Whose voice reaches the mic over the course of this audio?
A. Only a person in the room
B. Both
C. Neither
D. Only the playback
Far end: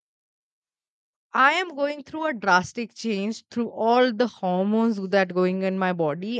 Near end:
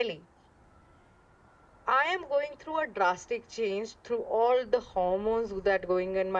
D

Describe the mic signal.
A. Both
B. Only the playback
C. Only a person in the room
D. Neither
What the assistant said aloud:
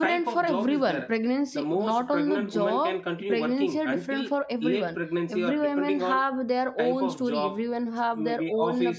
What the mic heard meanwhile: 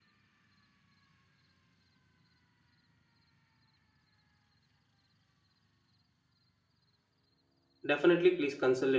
C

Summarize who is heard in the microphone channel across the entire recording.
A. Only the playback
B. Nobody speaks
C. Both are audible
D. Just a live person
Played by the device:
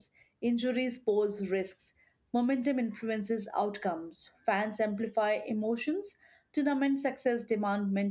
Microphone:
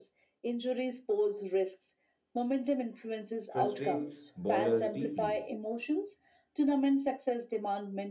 C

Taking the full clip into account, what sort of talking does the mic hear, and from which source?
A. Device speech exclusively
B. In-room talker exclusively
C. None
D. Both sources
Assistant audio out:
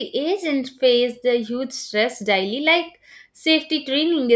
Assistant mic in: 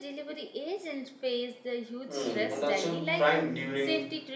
D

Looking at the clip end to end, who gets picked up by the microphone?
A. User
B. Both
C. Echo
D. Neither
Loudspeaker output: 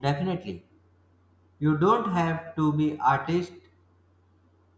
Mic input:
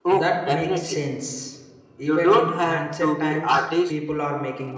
B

